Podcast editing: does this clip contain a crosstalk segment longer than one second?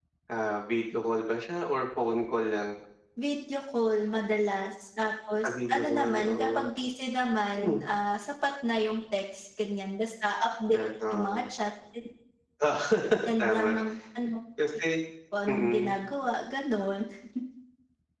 Yes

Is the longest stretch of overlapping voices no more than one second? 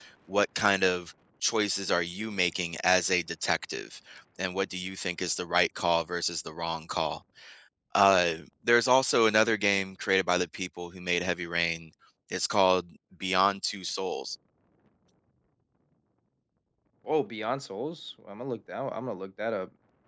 Yes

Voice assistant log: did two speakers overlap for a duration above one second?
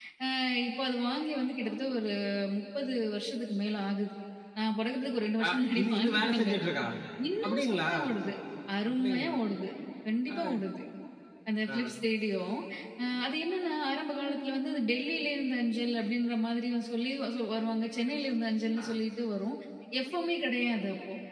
Yes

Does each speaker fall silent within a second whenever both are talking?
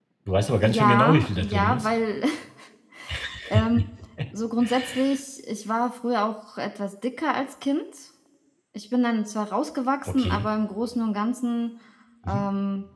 No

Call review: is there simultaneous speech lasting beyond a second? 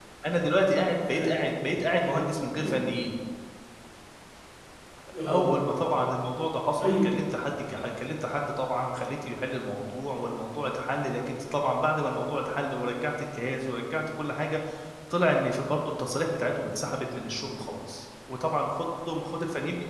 No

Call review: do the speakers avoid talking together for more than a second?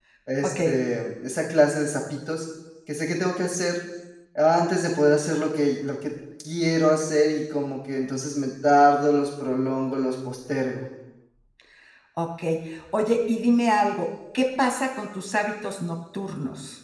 Yes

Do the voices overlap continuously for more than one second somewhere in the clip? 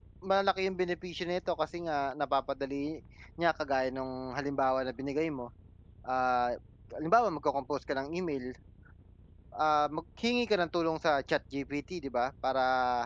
No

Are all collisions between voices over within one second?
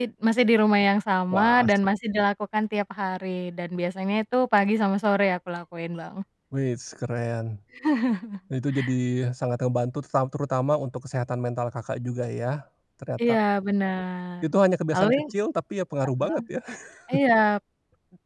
Yes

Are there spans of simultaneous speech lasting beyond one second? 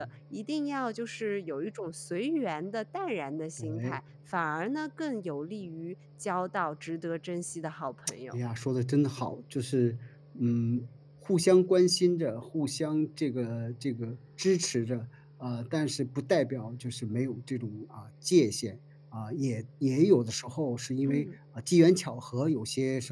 No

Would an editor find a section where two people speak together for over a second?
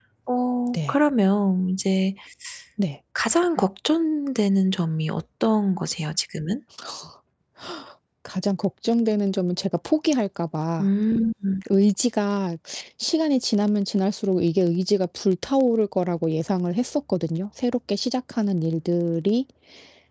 No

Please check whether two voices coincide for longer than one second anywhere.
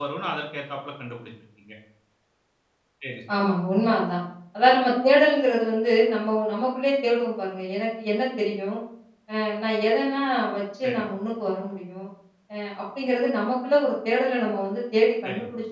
No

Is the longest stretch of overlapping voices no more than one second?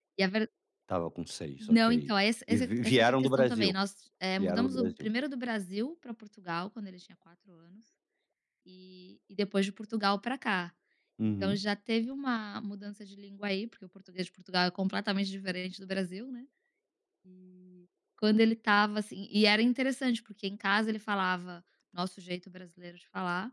No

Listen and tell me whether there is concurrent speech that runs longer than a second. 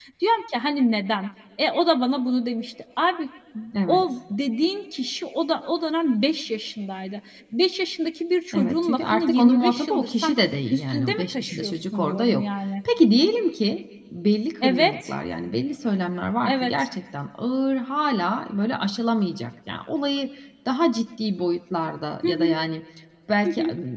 Yes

